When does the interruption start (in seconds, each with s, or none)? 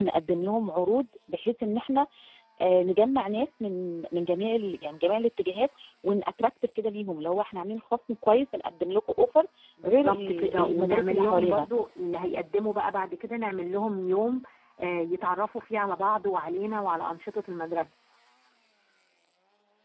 9.8 s